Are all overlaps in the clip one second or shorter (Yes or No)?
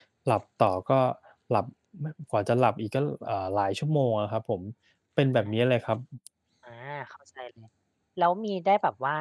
Yes